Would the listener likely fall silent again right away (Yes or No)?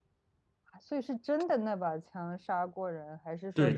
No